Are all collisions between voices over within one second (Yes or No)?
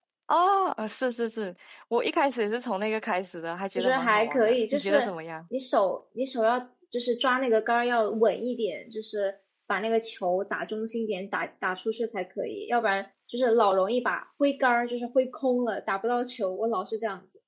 No